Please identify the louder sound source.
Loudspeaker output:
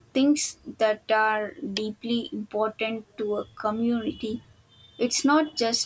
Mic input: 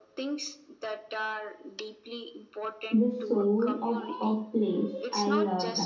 user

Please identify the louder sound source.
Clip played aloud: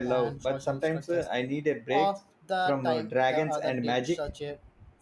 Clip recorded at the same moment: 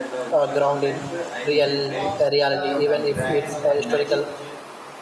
user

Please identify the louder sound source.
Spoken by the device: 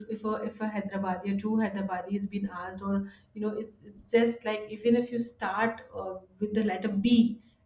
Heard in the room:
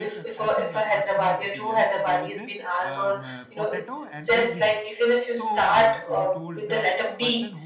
echo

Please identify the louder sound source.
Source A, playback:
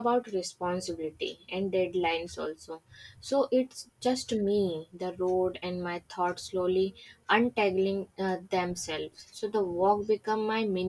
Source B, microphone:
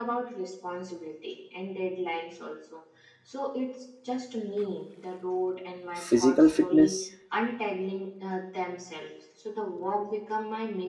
user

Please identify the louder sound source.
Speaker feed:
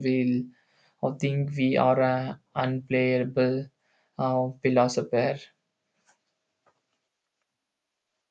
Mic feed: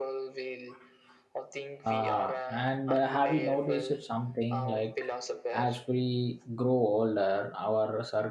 user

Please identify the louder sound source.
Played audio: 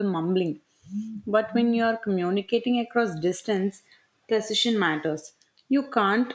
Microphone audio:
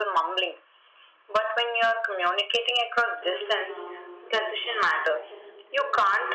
echo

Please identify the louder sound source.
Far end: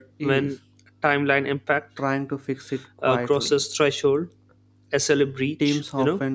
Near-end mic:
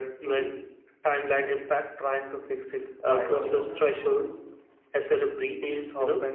echo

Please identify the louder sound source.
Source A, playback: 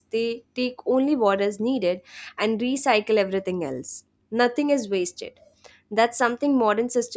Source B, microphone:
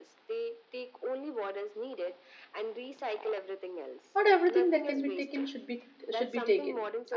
user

